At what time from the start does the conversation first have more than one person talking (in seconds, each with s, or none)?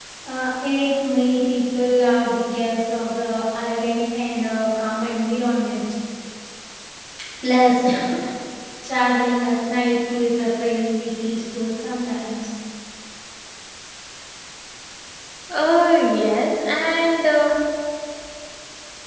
none